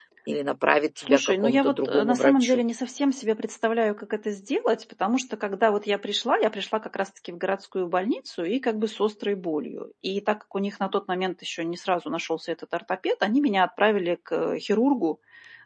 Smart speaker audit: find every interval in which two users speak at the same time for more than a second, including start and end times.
1.0-2.6

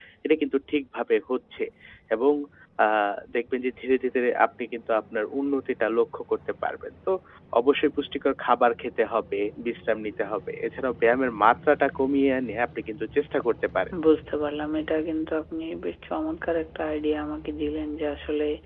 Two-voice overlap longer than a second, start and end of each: none

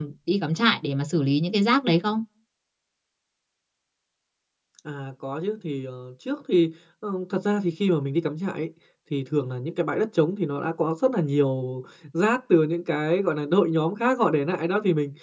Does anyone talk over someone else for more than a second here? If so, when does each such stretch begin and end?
none

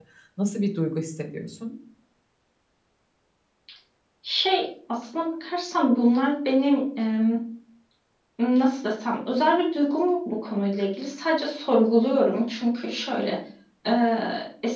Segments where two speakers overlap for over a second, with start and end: none

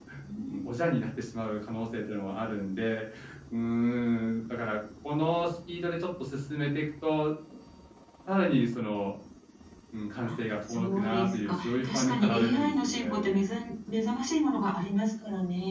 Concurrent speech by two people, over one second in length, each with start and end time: 10.7-13.6

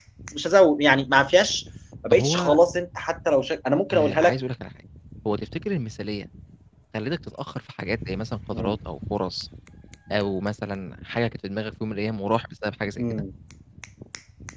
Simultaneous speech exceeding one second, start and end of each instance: none

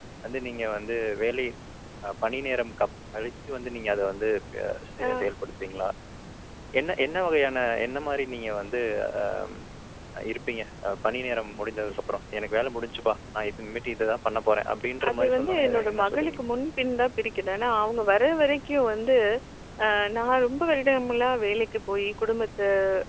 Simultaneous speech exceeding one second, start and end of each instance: 15.1-16.4

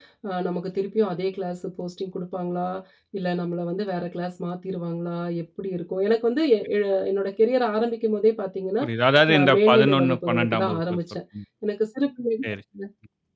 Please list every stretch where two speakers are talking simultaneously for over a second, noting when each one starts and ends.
9.3-11.0

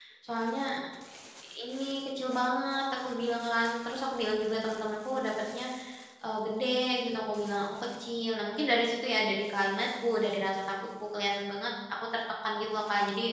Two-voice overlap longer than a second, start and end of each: none

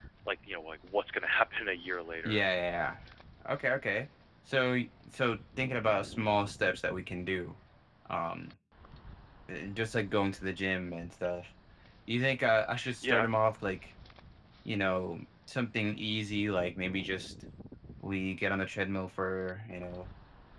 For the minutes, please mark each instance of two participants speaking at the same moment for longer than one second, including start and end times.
none

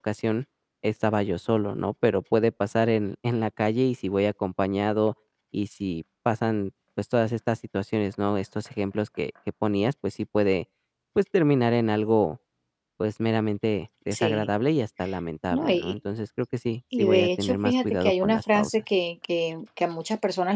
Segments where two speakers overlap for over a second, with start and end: 17.0-18.8

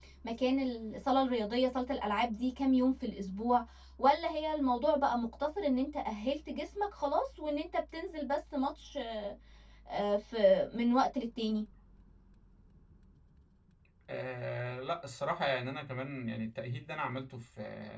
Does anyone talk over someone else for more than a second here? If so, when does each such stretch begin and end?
none

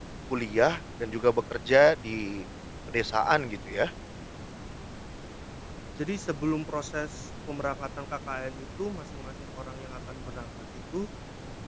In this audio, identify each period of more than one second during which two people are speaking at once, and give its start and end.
none

